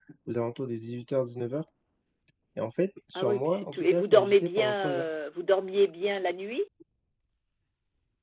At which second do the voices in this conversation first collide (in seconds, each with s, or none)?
3.2 s